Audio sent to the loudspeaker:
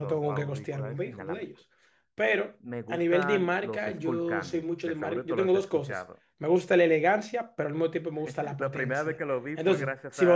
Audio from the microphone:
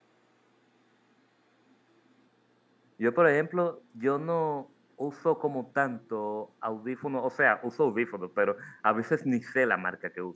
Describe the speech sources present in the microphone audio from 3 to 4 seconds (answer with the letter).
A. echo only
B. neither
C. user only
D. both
C